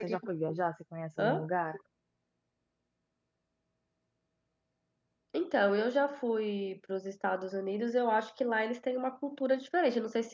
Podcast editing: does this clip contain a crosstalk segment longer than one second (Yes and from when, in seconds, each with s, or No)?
No